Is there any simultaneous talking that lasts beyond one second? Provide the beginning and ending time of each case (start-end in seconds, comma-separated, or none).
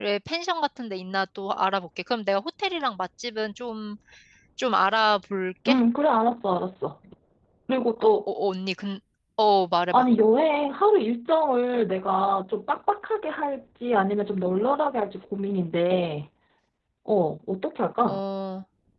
none